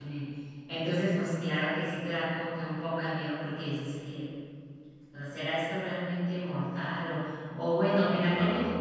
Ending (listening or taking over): listening